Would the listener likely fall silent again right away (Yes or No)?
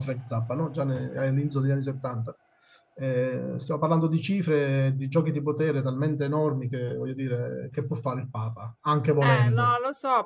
No